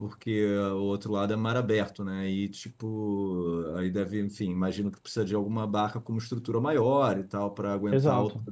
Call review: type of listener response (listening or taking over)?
taking over